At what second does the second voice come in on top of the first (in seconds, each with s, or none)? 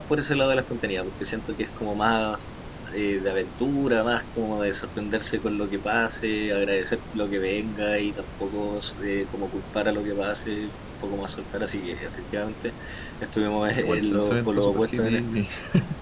13.8 s